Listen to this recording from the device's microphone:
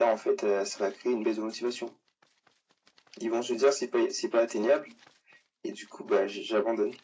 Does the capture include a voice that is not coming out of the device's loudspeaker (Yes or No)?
No